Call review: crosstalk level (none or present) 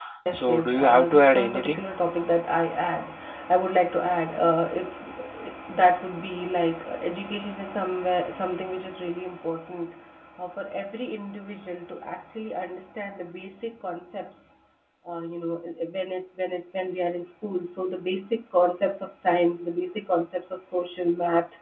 present